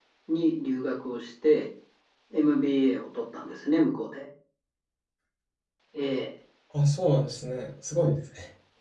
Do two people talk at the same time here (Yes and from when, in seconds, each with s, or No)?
No